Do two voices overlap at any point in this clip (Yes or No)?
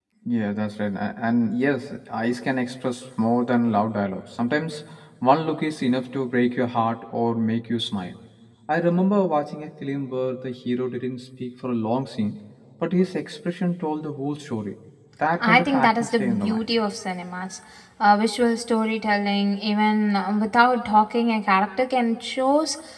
Yes